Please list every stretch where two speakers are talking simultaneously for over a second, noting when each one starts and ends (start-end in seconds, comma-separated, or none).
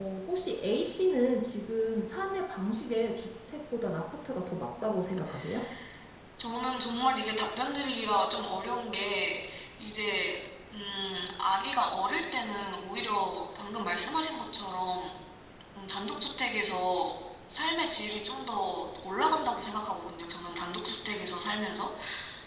none